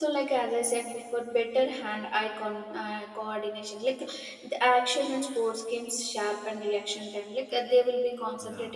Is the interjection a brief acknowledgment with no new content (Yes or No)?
Yes